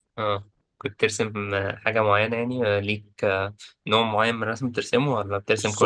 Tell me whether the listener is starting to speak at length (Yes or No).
Yes